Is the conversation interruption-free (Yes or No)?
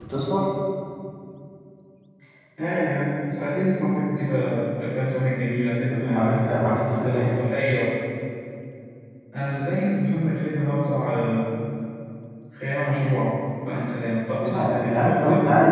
No